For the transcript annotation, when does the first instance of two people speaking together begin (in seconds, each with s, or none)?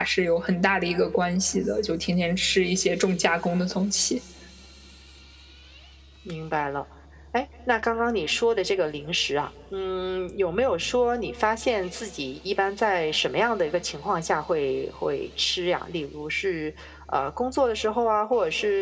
none